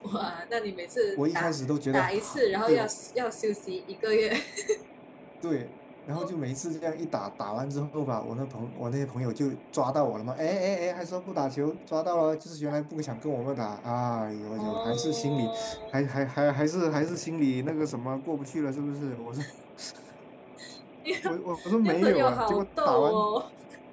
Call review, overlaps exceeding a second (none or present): present